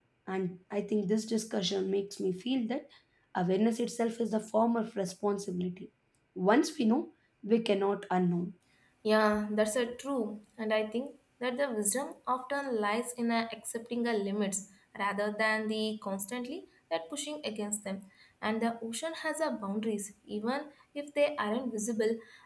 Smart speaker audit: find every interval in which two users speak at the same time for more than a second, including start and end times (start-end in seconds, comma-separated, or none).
none